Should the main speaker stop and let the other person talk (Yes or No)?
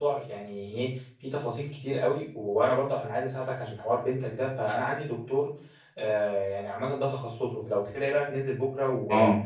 Yes